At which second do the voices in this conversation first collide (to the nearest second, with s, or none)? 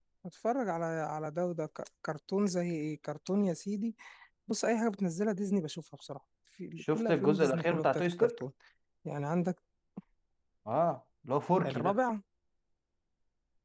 7 s